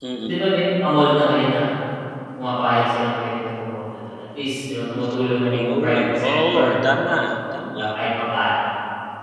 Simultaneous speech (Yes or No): Yes